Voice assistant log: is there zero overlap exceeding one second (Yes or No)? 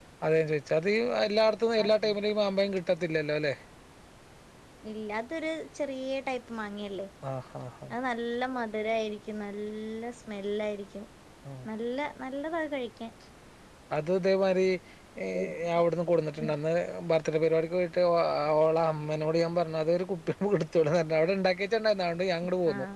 Yes